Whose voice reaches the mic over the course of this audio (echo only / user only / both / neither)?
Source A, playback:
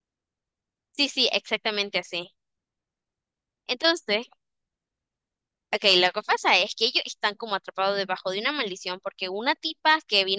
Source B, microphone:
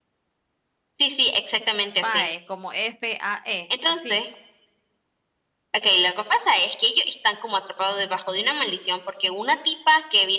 both